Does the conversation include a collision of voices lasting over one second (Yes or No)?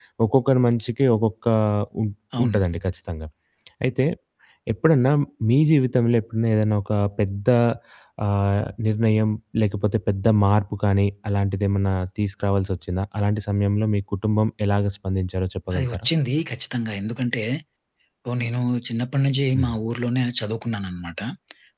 No